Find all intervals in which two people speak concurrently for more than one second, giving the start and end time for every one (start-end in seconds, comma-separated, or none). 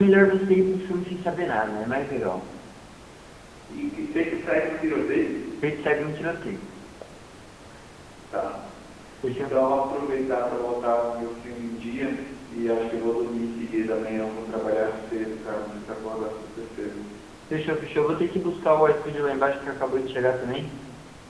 none